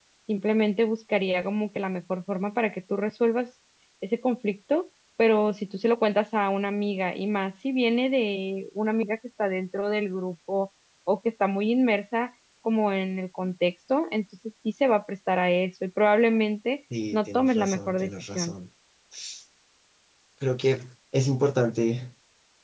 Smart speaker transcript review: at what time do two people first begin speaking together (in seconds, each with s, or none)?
16.9 s